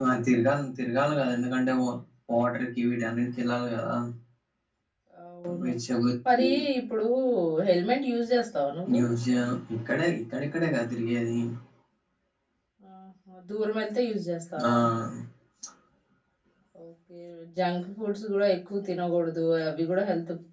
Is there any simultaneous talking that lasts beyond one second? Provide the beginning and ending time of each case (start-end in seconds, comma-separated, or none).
none